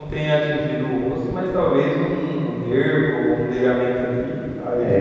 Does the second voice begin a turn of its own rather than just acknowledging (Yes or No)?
Yes